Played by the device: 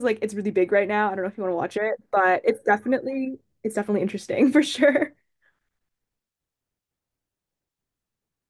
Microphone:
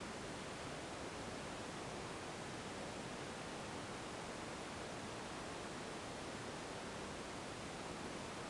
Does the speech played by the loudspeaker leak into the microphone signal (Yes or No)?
No